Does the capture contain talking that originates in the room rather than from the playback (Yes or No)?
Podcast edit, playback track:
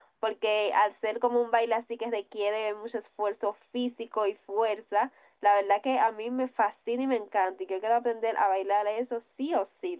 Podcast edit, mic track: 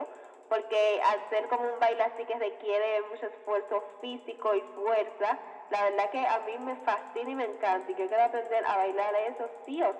No